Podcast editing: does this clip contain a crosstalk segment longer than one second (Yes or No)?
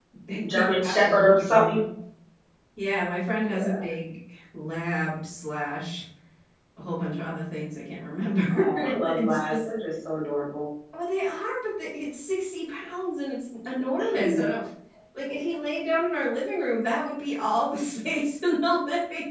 Yes